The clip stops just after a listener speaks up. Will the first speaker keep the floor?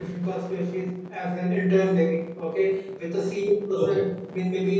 Yes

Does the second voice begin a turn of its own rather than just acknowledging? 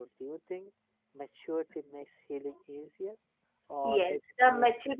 Yes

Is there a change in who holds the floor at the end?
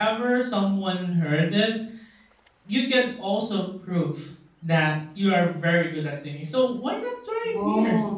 No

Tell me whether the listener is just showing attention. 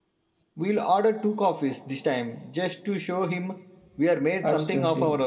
No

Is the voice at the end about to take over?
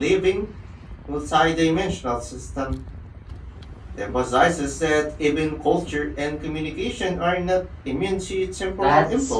Yes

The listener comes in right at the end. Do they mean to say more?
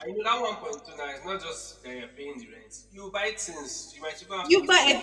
Yes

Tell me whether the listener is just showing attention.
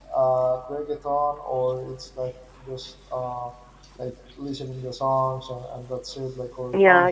No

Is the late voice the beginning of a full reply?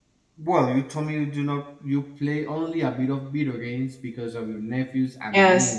No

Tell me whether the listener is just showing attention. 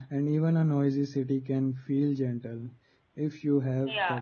No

